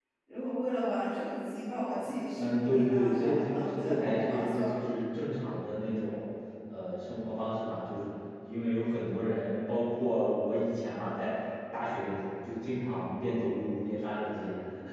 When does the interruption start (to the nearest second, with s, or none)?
2 s